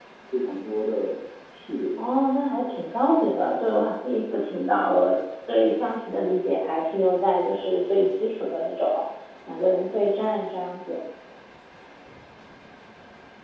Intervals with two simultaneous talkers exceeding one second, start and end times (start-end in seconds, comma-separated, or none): none